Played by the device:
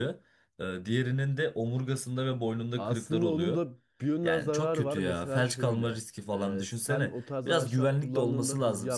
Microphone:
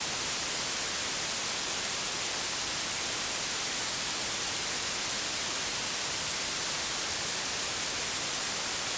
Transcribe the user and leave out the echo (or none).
none